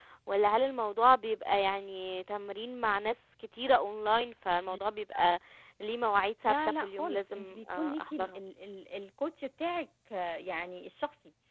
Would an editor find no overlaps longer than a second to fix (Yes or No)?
No